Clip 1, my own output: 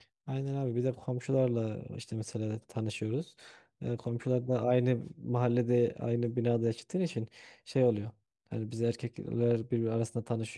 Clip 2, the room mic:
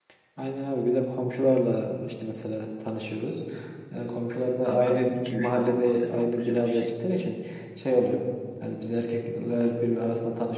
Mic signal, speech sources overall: both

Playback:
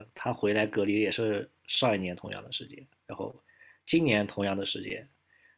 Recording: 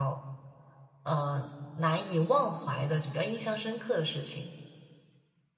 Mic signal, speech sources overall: user only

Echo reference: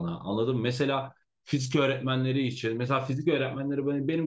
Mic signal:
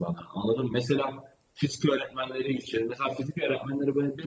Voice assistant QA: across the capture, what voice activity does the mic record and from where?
echo only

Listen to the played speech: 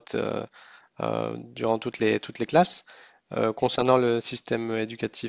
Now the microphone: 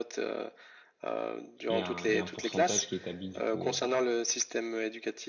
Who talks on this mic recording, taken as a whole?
both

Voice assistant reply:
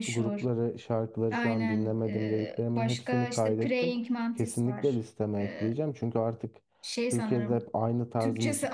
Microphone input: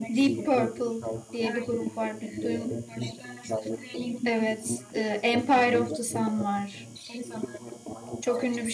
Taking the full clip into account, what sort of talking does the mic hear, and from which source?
both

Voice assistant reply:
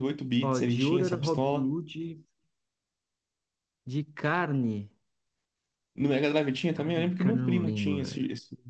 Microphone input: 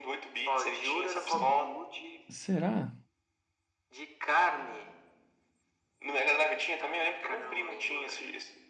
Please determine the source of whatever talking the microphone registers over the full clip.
both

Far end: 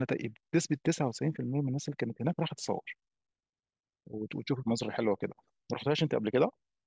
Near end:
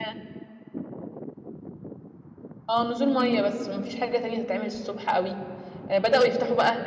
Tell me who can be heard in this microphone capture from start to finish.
user only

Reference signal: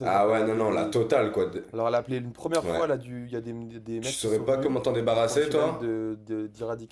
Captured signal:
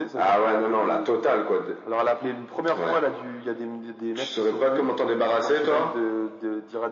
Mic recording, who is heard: echo only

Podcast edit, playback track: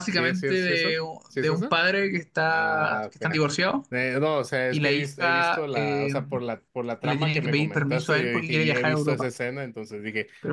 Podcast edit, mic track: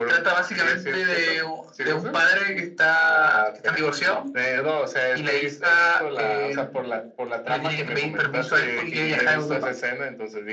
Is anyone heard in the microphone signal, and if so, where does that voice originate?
echo only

